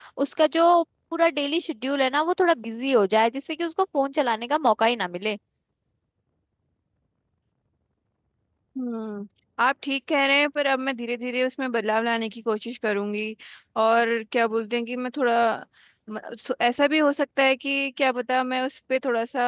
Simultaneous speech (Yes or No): No